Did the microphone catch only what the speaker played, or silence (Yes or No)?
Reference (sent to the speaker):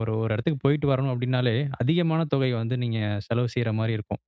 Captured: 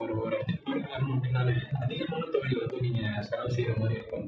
Yes